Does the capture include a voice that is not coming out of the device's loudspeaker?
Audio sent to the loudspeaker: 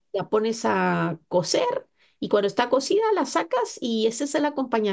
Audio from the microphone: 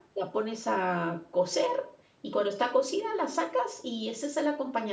No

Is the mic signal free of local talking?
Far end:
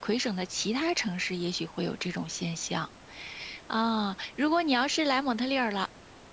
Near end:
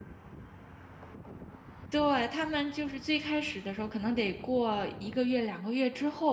No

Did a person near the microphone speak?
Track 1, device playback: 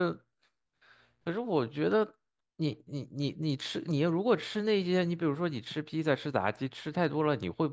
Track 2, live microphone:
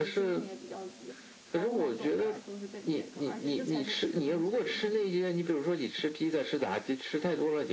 Yes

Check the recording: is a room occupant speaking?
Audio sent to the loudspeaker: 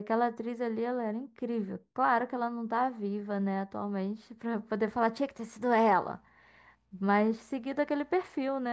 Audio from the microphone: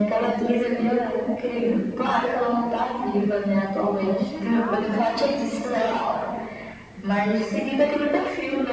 Yes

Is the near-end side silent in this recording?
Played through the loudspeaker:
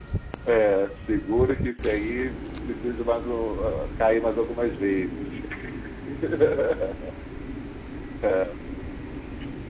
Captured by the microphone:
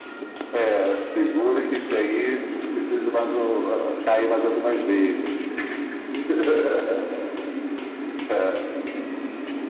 Yes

